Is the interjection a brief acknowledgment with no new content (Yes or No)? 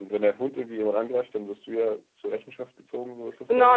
No